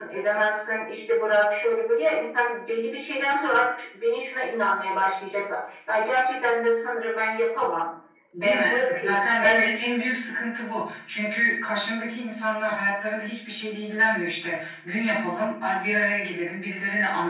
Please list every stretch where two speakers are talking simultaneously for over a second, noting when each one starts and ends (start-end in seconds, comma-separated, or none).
8.4-9.7